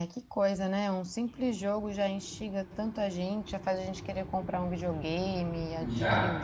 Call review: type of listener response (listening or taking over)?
taking over